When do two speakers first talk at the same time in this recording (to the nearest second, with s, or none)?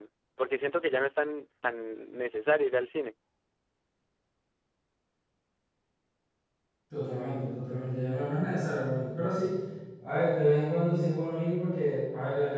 none